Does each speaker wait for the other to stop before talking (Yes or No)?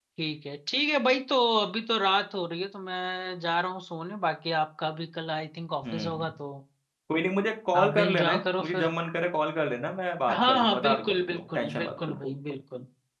No